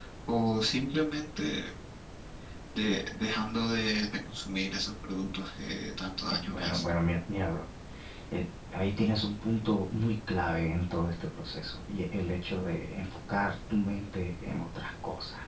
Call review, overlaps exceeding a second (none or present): none